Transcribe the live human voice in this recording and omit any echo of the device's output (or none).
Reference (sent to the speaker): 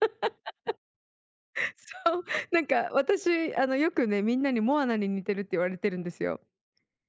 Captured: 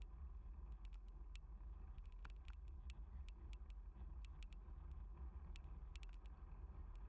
none